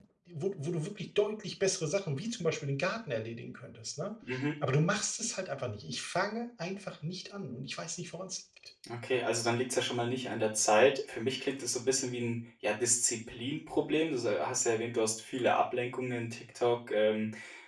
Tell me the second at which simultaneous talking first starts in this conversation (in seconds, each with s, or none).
none